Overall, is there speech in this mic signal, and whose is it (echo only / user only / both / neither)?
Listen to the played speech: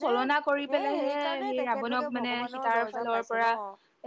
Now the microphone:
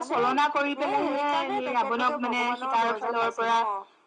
echo only